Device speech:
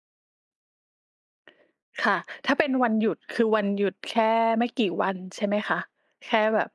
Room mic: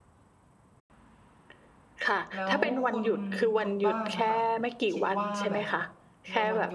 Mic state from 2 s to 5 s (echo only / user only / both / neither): both